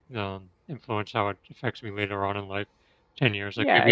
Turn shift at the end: Yes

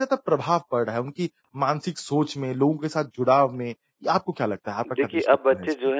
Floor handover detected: Yes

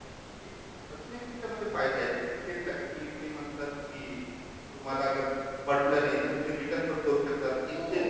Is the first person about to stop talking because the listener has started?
Yes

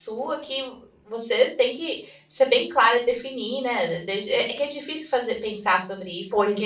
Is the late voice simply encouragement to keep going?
Yes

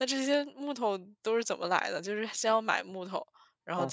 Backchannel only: No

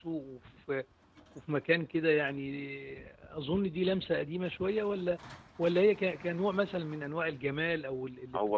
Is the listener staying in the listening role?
No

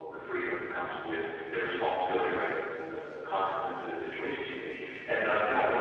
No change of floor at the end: Yes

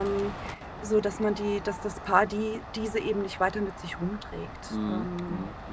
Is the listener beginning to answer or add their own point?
Yes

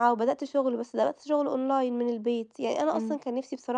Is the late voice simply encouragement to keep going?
Yes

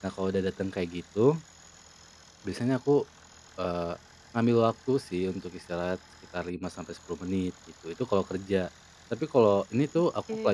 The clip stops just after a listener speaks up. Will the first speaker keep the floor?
Yes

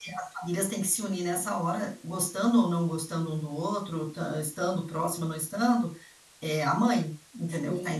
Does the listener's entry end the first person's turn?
Yes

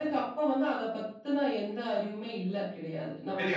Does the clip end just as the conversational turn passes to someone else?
No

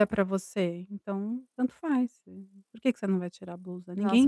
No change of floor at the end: No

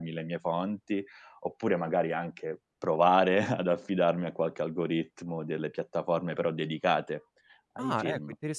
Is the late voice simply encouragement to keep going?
No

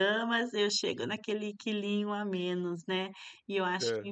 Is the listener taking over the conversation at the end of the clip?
No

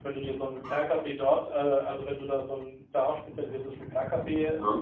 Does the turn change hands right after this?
No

